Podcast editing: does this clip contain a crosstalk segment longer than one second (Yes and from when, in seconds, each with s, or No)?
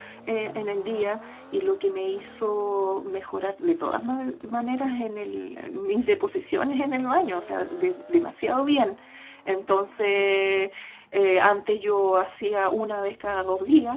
No